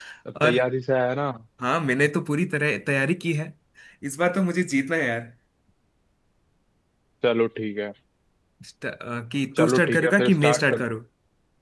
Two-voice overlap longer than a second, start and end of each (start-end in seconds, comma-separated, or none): 9.6-10.8